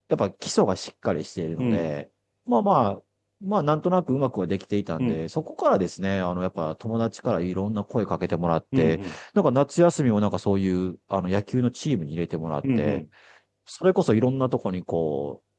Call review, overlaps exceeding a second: none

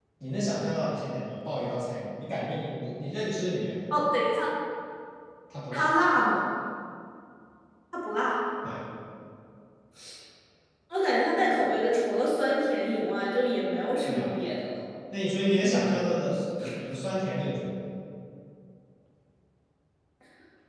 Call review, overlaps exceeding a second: none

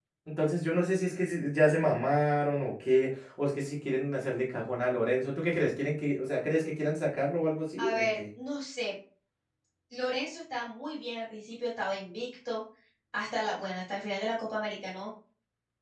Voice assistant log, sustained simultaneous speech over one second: none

